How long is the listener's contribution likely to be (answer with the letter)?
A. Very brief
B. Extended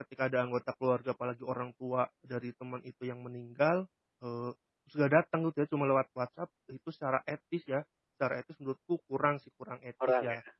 B